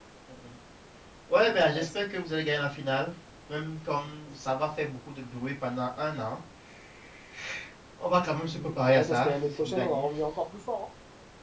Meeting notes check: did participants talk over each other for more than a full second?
Yes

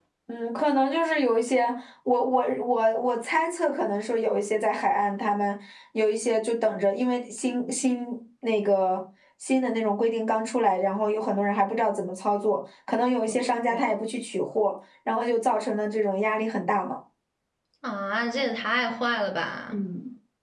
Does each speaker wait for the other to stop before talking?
Yes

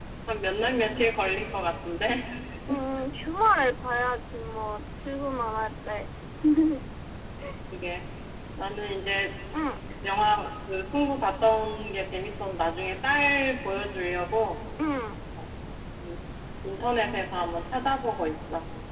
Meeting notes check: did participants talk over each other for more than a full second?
No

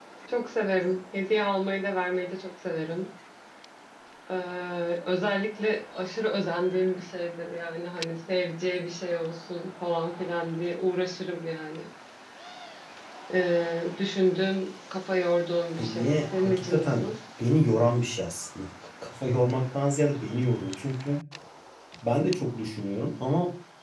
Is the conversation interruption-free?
No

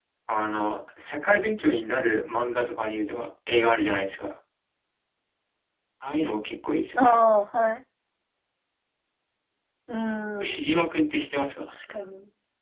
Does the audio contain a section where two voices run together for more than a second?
No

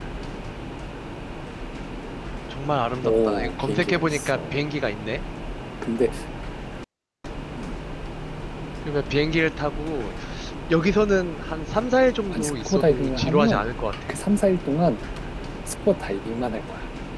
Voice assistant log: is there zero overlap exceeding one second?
No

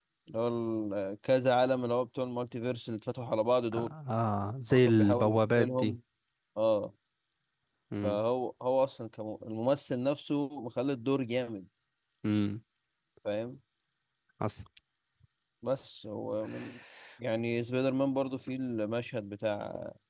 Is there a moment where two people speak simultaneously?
Yes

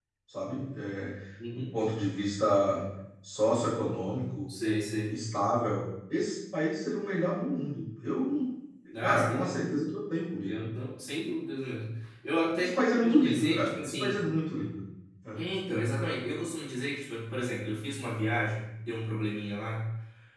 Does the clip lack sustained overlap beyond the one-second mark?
No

